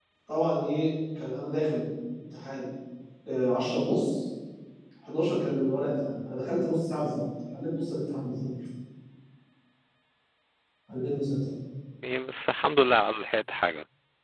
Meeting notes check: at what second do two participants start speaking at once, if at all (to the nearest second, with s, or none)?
none